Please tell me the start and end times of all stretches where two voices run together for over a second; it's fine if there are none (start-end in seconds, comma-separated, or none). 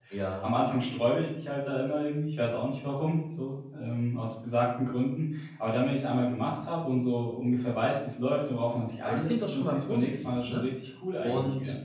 9.0-10.6